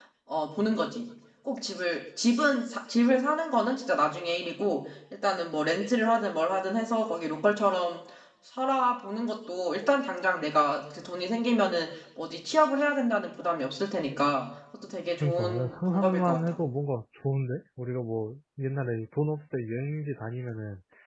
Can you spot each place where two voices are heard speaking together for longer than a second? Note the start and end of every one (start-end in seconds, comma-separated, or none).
15.2-16.6